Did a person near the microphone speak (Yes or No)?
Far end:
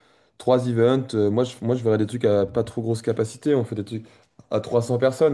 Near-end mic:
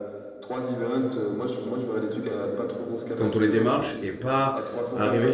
Yes